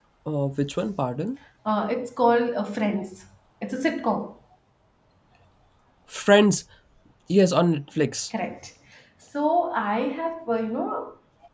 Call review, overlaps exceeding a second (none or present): none